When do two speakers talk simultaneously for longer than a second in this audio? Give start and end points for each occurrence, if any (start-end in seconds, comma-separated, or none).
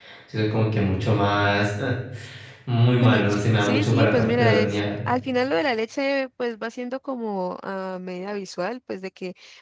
3.0-4.8